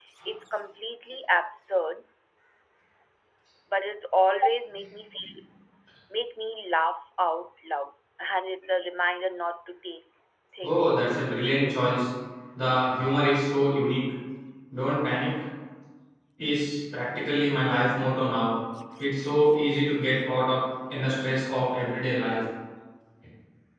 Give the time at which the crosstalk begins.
10.6 s

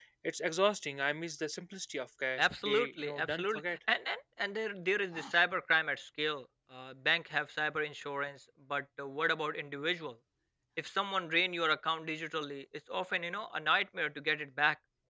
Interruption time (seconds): 2.4 s

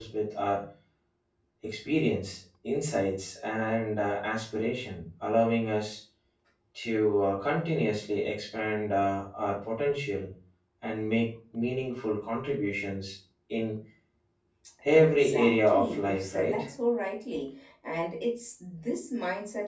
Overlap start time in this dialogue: 14.9 s

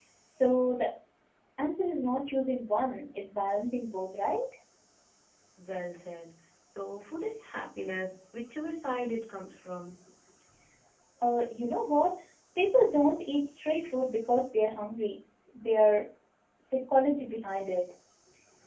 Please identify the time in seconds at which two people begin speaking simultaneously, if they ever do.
none

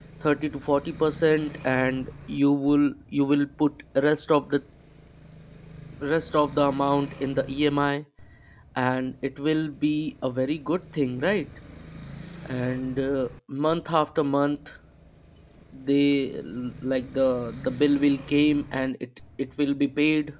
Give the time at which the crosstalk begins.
none

